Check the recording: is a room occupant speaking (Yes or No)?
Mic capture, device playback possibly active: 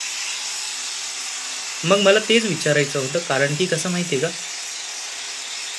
Yes